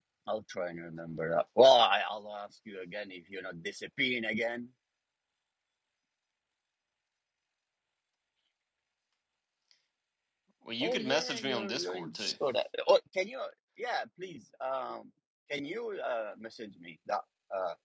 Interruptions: present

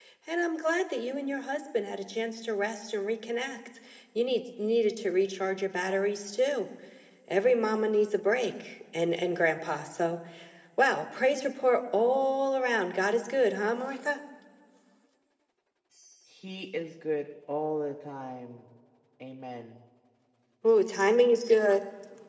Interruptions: none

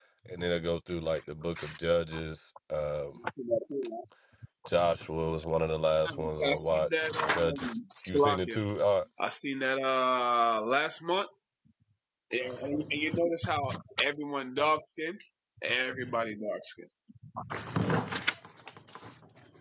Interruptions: present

